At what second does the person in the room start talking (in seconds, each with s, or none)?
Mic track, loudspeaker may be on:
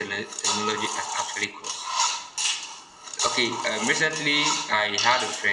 none